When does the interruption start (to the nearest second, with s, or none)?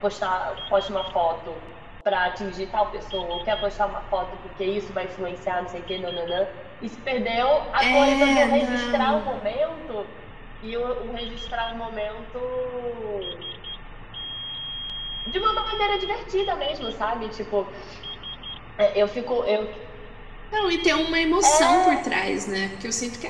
8 s